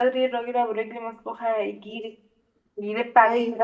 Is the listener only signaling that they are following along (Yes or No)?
Yes